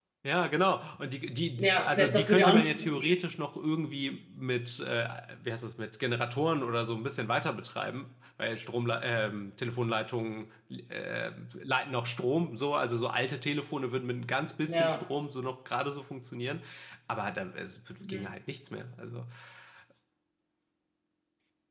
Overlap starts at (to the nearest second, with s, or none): 2 s